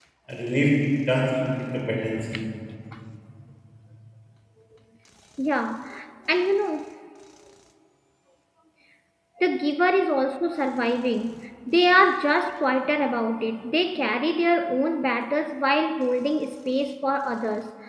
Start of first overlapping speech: none

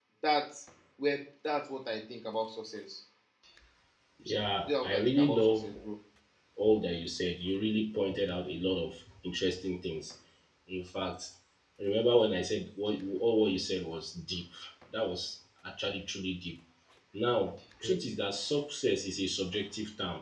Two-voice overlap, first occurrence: 4.2 s

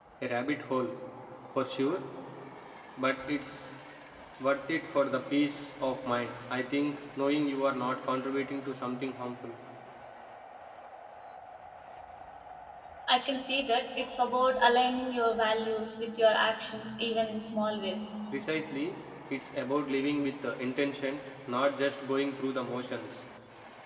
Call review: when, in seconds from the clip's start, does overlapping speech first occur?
none

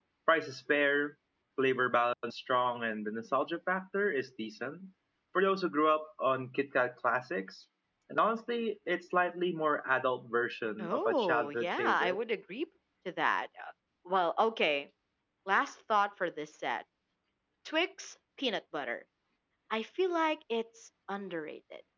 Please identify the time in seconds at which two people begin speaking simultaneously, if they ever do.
10.8 s

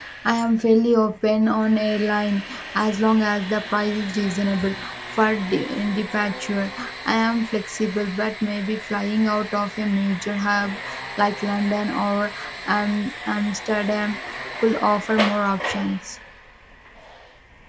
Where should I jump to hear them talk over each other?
none

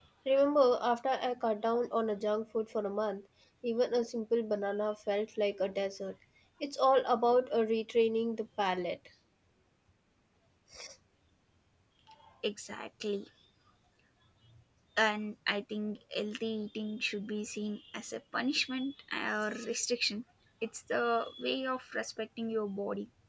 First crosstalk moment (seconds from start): none

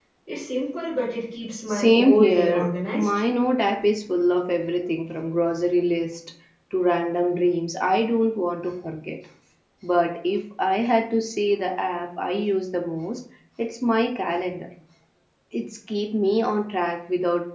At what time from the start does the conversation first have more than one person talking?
1.7 s

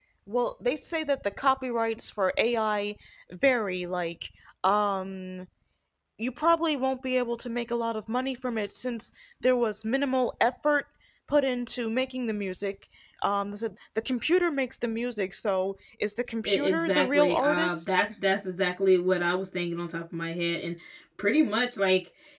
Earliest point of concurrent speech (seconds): 16.4 s

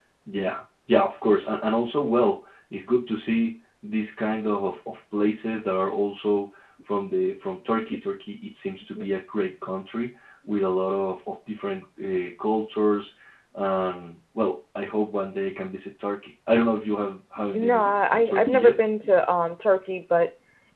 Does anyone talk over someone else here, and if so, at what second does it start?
17.5 s

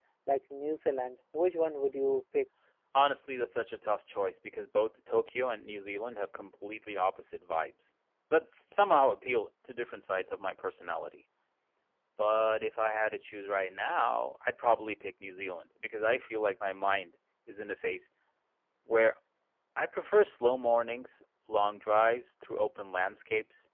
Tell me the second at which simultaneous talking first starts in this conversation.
none

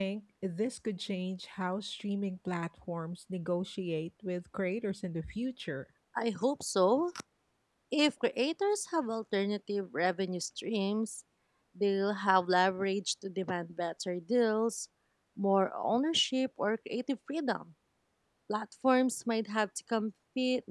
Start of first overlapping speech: none

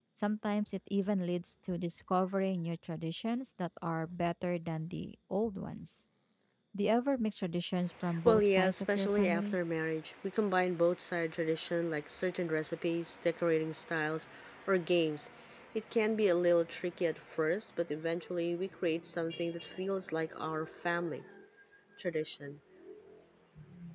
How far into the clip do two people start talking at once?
8.0 s

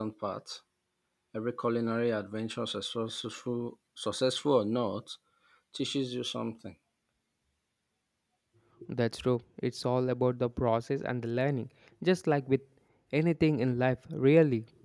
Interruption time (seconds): none

